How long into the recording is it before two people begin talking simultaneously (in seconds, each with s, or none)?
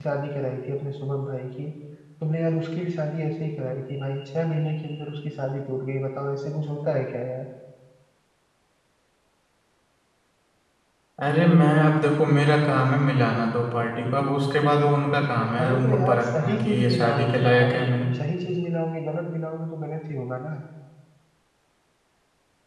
15.5 s